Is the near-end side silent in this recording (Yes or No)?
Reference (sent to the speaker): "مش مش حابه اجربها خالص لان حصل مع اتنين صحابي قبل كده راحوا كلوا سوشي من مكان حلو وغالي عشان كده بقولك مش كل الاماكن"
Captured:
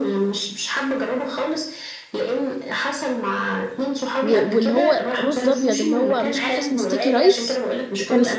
No